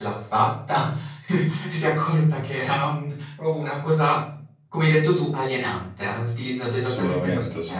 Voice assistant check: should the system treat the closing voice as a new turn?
No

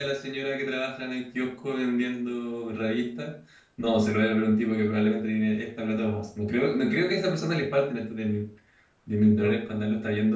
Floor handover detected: No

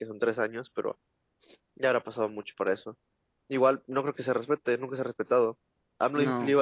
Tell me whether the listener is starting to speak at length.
No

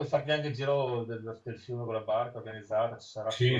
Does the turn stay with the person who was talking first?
No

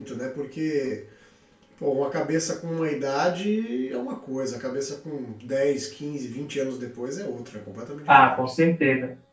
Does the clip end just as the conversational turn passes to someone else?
Yes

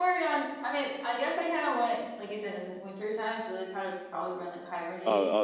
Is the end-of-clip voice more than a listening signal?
Yes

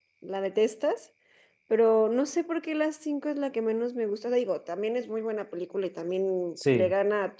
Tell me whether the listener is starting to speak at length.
No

